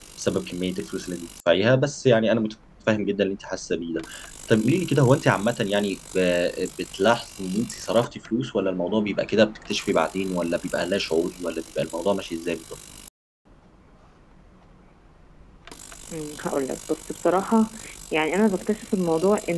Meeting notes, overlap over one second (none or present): none